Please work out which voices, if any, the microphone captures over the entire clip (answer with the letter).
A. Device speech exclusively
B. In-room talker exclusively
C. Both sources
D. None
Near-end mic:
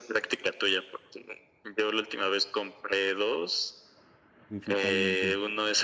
C